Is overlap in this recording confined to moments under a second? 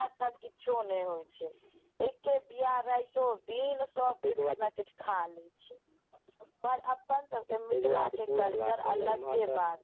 No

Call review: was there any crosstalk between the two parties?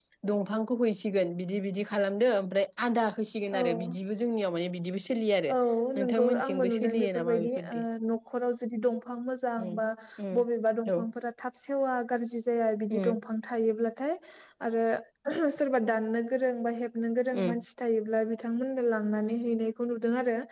Yes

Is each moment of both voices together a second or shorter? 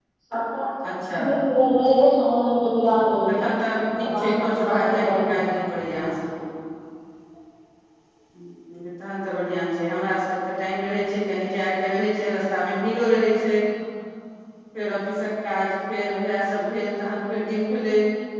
No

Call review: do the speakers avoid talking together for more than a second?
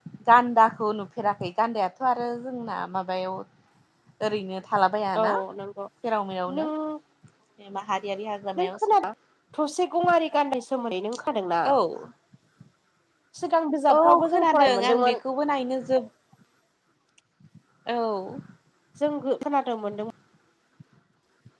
No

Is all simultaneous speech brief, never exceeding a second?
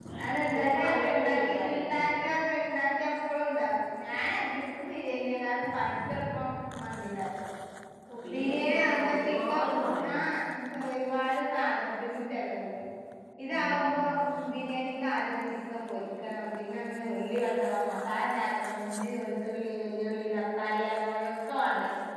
No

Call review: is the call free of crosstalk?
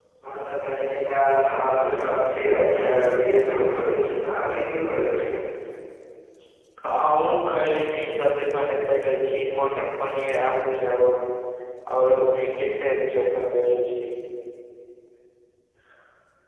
Yes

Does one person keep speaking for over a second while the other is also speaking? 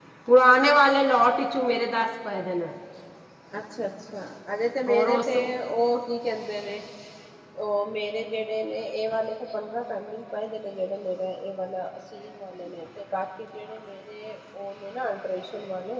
No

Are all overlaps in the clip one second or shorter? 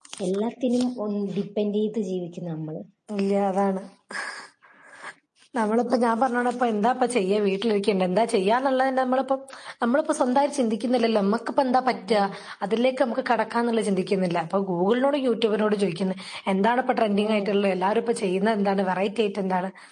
Yes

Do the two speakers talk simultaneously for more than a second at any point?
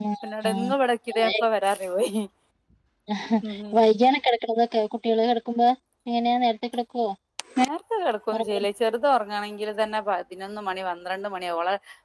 No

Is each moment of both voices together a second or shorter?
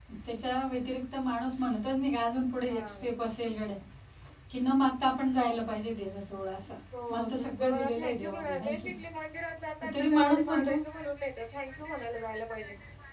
No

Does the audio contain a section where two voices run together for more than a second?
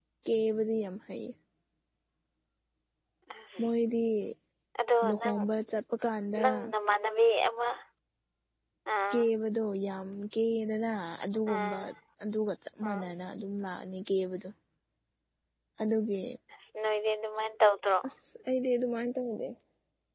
No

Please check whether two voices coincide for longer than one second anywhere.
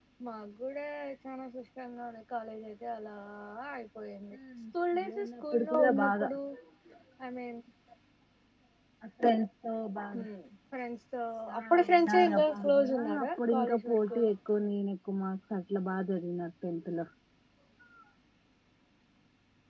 Yes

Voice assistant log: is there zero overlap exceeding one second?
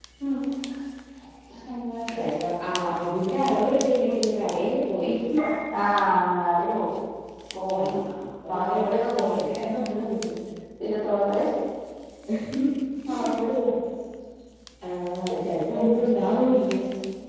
No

